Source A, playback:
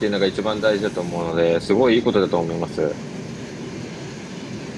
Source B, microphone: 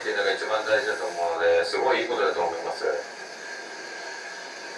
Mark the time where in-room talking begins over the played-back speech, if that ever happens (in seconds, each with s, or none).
none